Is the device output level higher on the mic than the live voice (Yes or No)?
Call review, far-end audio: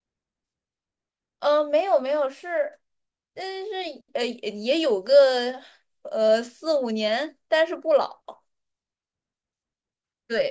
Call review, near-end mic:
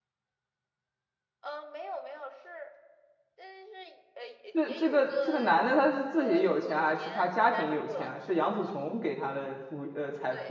No